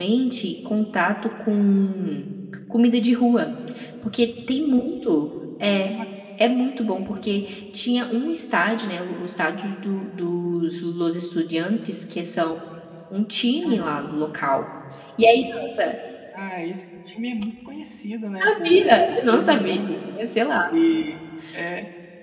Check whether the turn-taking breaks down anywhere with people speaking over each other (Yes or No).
Yes